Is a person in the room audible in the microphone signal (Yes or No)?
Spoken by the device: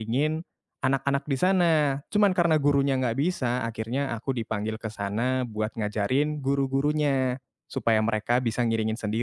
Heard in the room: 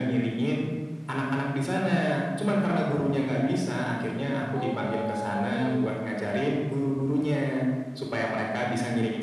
Yes